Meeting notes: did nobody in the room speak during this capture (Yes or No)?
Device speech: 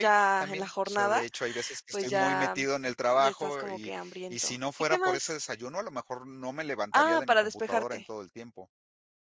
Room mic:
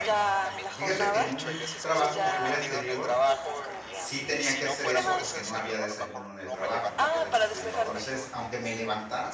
No